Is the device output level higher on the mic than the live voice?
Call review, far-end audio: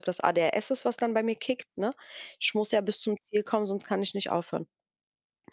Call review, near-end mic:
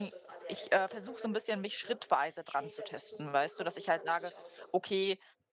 No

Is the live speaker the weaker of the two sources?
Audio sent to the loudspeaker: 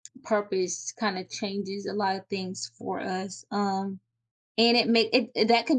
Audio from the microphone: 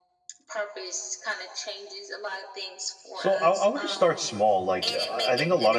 No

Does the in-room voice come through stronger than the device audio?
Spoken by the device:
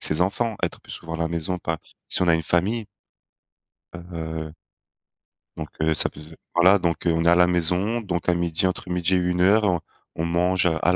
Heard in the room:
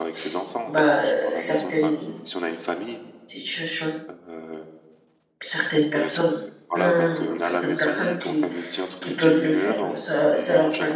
Yes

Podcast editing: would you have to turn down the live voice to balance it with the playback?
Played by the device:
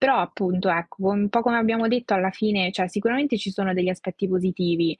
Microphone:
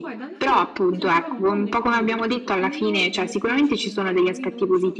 No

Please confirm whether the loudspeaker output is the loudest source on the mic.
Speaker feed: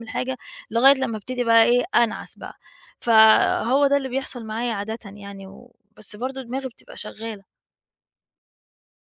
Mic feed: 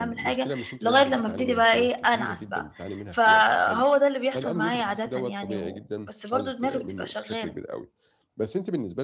Yes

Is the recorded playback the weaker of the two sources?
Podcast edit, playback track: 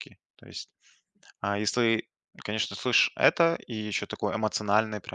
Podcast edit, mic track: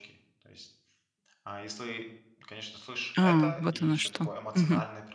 Yes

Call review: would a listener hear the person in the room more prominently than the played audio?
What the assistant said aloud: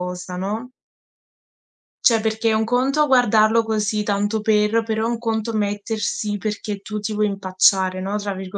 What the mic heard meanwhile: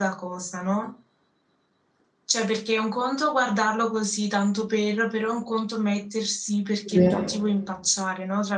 Yes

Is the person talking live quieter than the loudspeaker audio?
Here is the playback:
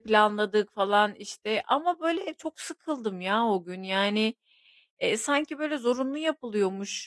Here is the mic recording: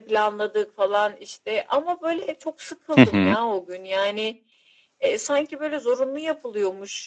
No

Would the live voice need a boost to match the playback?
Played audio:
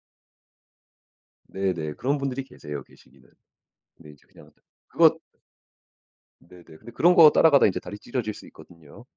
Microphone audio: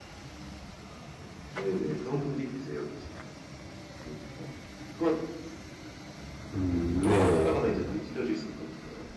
No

